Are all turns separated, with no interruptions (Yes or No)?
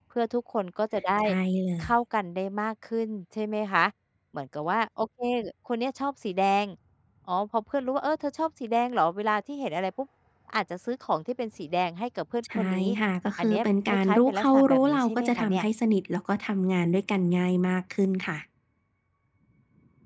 No